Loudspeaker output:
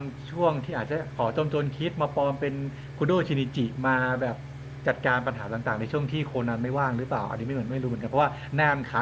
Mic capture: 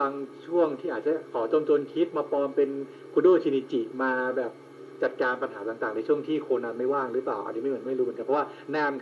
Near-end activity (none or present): none